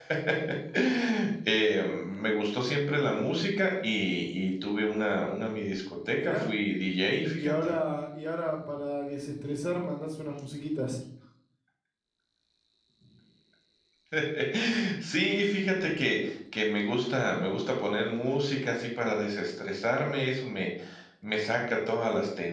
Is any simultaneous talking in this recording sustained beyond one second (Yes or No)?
No